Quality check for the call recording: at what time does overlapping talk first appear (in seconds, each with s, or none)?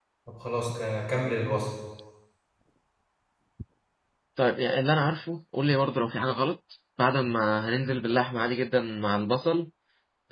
none